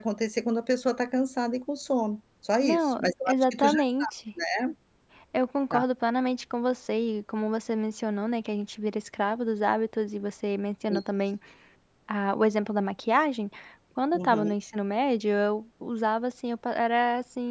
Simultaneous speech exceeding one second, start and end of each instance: 2.6-4.1

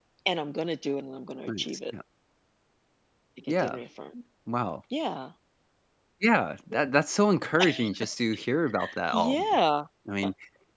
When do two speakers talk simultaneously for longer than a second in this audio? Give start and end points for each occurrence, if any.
none

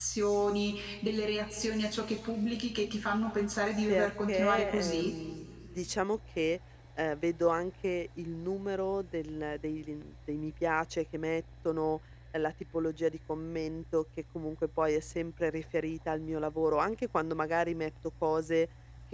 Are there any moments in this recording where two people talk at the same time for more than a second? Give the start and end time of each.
3.9-5.1

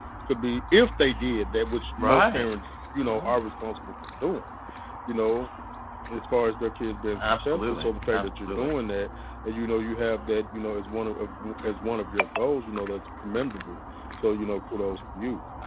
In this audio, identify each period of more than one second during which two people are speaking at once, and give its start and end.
7.2-8.7

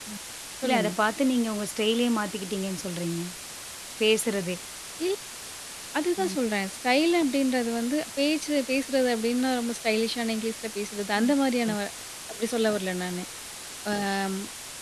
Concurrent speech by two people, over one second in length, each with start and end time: none

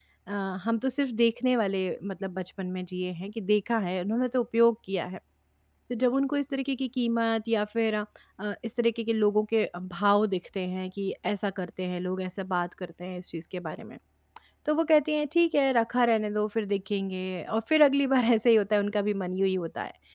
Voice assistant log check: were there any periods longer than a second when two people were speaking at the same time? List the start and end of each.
none

